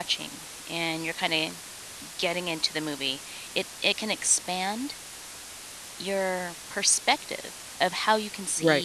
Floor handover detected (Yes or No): No